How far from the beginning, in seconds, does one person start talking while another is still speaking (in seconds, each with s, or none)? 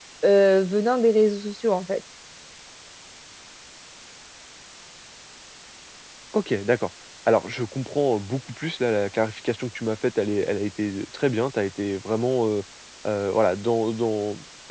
none